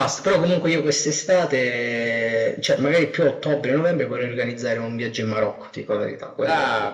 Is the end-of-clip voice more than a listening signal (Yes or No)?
Yes